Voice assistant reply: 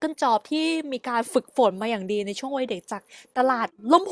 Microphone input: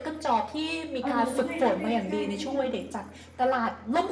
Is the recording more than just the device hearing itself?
Yes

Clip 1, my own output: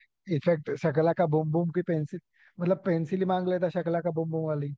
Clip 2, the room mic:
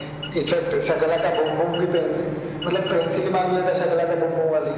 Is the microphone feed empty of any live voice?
Yes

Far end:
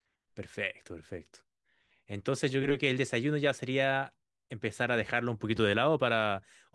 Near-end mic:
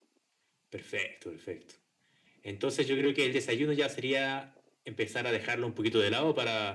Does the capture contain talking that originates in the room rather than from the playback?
No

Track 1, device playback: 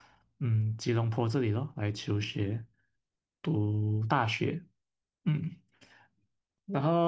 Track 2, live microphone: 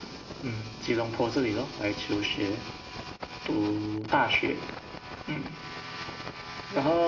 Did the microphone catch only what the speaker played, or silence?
Yes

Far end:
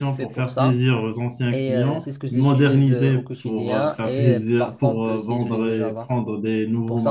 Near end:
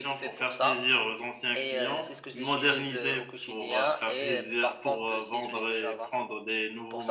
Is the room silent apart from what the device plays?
Yes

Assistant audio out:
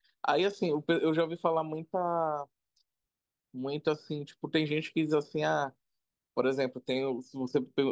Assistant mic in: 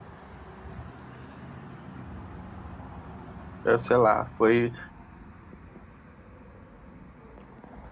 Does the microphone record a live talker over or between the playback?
Yes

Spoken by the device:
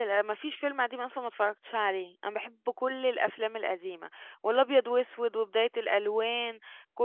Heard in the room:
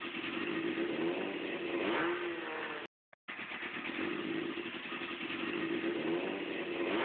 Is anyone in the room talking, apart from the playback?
No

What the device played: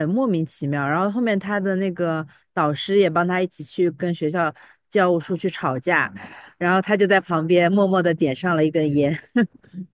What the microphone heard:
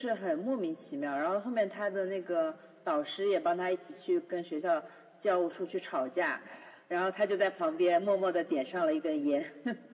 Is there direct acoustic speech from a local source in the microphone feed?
No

